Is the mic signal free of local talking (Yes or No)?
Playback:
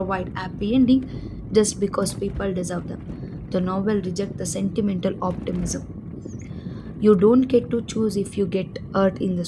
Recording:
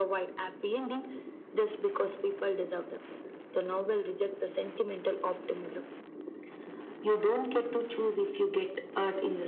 Yes